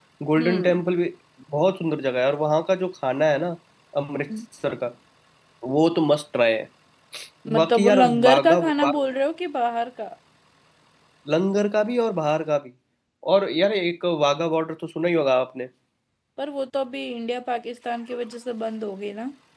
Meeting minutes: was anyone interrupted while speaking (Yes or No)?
Yes